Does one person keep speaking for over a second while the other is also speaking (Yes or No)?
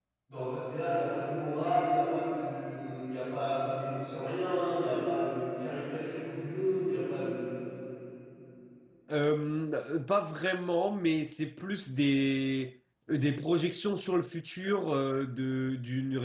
No